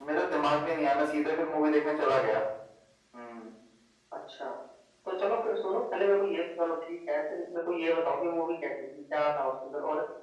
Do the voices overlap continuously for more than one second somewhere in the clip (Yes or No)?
No